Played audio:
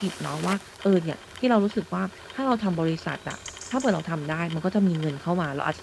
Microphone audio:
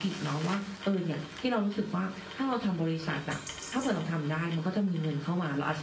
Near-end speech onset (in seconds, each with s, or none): none